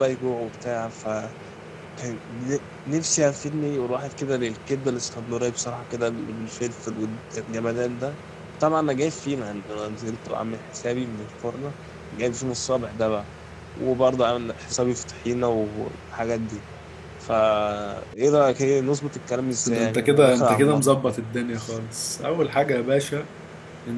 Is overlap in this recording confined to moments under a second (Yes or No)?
No